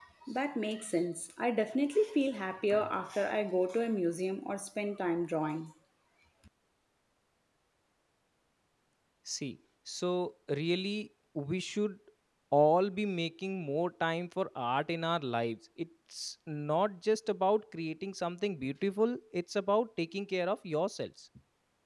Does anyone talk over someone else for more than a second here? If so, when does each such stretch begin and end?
none

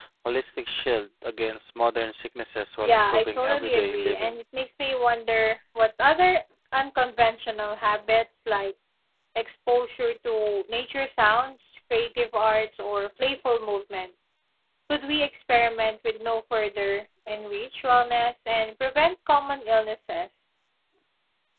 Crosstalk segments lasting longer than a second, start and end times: 2.8-4.4

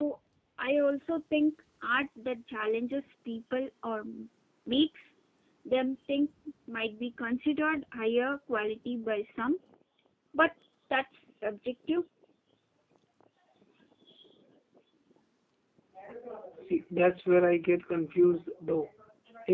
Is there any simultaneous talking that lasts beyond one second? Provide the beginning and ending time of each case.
none

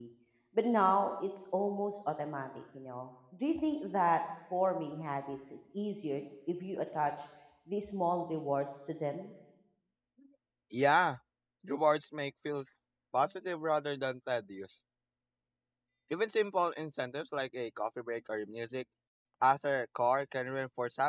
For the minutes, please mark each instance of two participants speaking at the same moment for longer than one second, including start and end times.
none

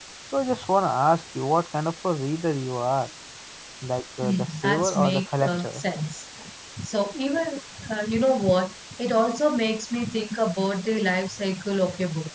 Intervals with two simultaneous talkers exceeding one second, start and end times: 4.2-5.8

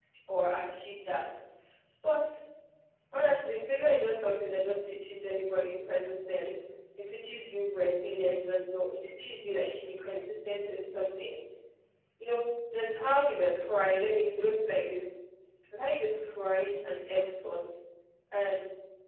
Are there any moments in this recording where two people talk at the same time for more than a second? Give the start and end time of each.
none

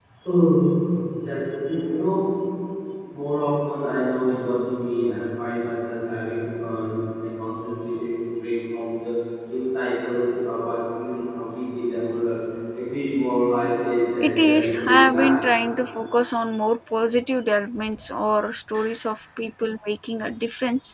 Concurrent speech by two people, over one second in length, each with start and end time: 14.2-15.4

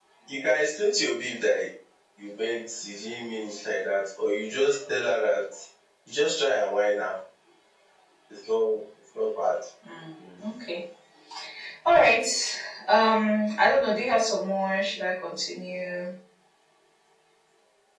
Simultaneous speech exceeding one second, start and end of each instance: none

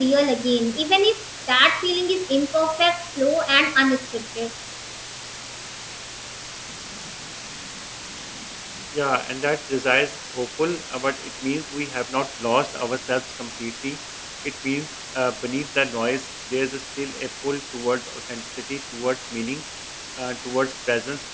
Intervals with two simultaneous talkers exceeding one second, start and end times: none

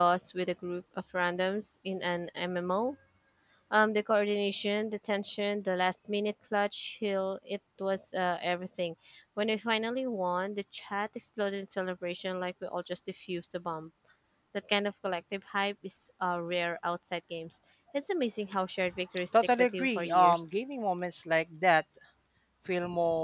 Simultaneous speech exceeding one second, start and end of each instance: 19.3-20.5

